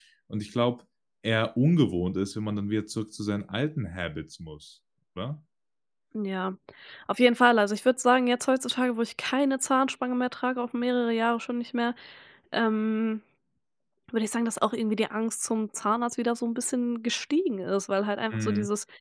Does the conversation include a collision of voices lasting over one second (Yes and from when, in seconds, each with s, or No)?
No